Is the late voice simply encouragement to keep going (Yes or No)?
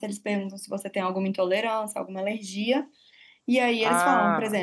Yes